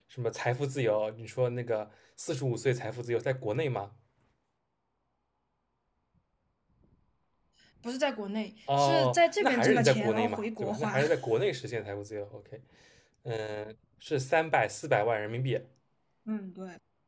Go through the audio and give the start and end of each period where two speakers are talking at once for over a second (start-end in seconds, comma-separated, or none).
8.8-11.0